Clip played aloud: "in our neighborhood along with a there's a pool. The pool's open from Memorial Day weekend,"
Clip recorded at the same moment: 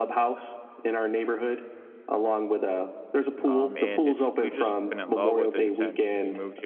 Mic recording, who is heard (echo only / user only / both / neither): both